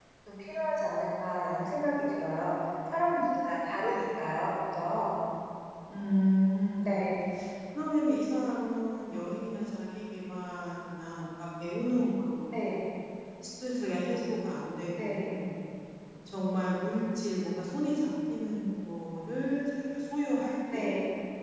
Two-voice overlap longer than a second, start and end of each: none

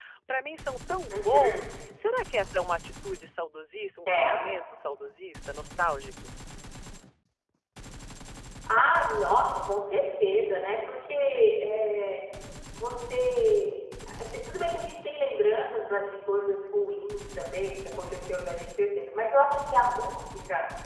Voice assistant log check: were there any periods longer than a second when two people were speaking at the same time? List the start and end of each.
none

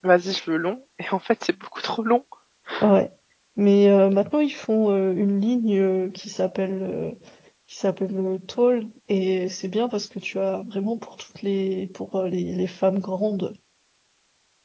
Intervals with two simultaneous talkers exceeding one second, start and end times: none

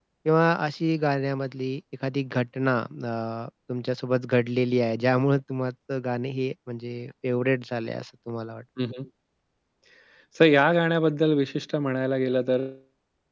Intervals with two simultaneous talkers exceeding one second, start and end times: none

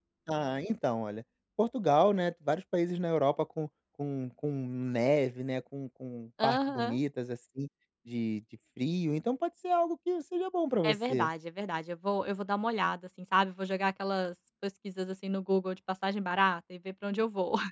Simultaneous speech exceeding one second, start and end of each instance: none

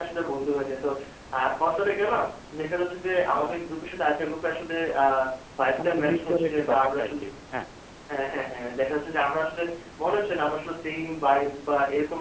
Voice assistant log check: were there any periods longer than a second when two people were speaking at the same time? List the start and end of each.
5.8-7.3

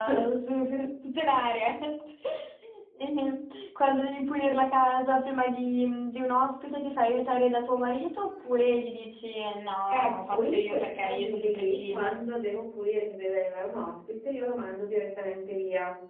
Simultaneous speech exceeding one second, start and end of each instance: 9.9-12.1

